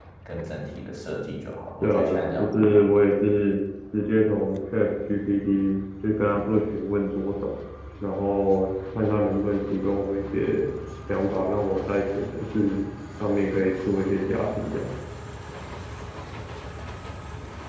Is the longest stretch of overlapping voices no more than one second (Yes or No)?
No